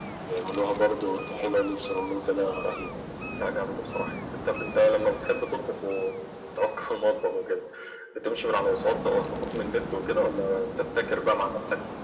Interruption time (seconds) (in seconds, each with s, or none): none